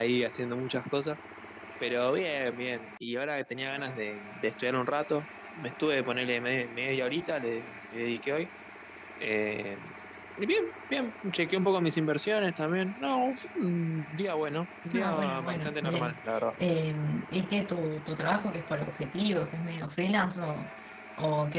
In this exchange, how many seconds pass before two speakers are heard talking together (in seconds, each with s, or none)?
14.9 s